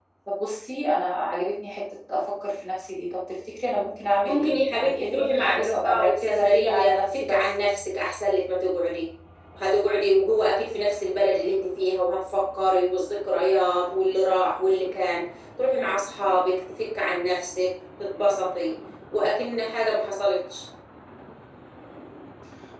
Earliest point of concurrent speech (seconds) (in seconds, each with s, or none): 4.2 s